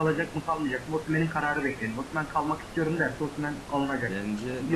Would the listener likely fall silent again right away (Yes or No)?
No